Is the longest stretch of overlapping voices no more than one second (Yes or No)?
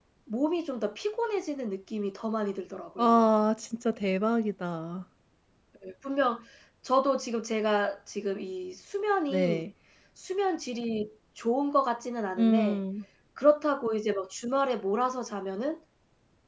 Yes